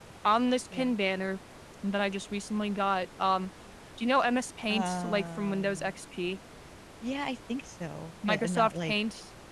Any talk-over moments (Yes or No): Yes